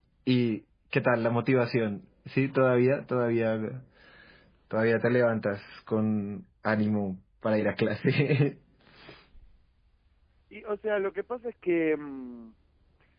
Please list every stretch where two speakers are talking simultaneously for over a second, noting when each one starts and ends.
none

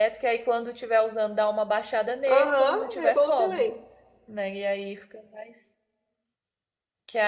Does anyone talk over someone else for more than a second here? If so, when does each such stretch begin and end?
2.3-3.6

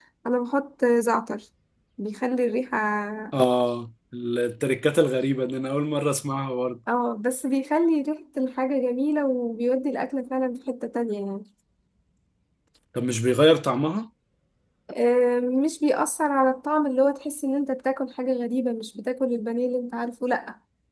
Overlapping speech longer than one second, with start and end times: none

